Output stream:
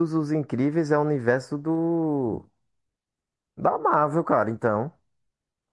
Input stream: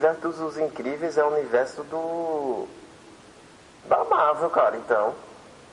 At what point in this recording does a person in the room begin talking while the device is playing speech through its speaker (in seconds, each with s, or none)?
none